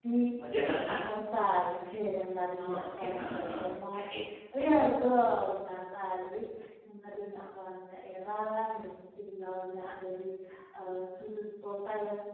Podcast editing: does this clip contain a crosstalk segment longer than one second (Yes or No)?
Yes